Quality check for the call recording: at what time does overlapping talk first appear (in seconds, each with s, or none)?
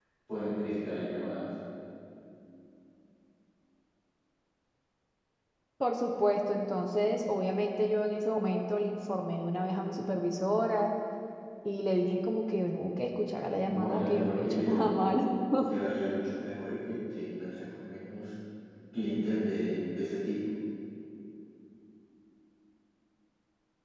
13.6 s